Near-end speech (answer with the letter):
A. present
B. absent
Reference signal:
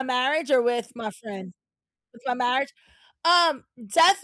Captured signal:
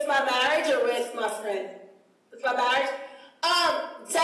B